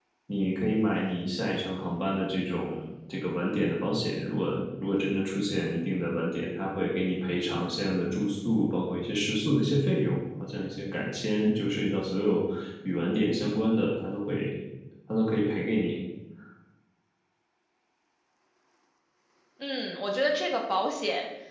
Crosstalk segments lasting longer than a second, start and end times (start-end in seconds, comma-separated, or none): none